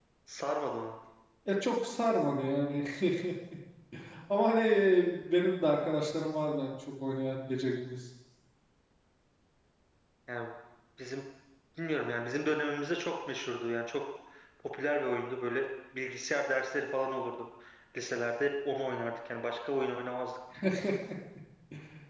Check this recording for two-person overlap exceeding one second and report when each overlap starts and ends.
none

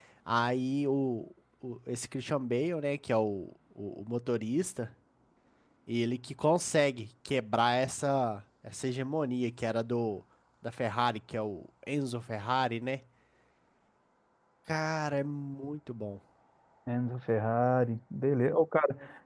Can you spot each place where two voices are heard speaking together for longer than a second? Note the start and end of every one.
none

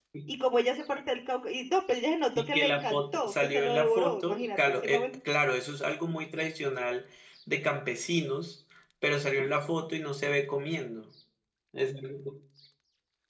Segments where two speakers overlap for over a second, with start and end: 2.4-4.8

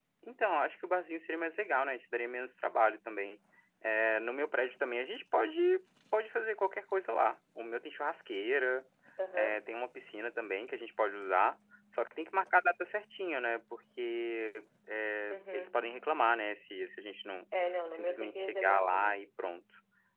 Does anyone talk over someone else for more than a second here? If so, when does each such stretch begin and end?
18.0-19.2

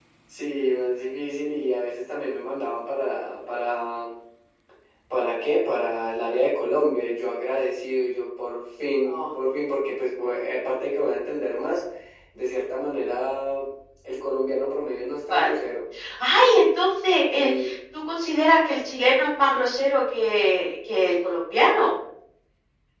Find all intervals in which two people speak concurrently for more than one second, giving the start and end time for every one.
none

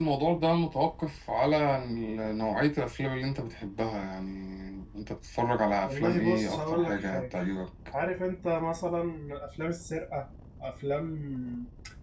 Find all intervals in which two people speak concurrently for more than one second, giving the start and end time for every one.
5.8-7.3

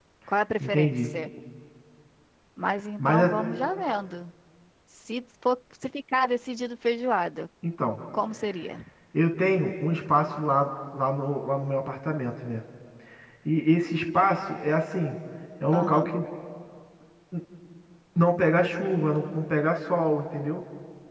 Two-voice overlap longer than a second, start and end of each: none

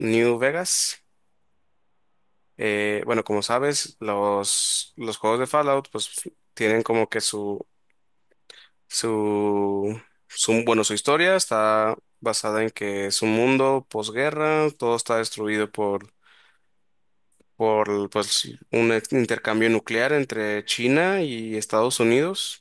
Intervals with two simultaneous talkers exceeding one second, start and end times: none

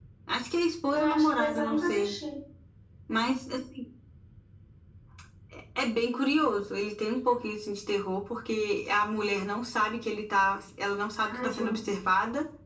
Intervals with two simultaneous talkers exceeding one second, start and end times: 0.9-2.1

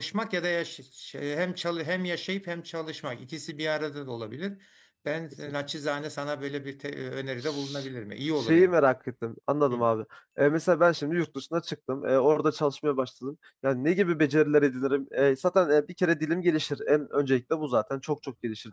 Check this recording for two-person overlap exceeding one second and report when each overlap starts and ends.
none

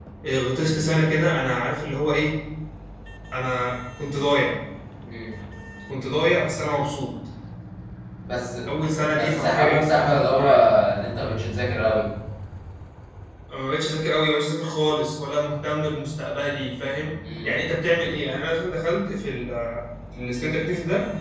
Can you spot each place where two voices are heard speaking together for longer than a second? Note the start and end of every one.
9.2-10.5

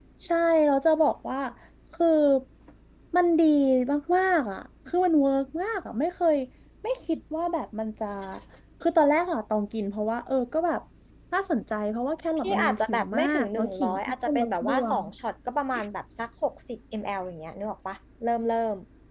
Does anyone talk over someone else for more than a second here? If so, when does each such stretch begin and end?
12.4-15.0

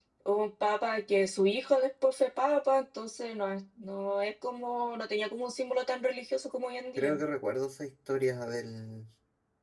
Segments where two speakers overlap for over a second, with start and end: none

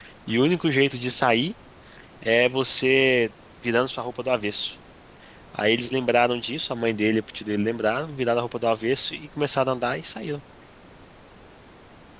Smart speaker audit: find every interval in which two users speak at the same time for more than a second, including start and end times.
none

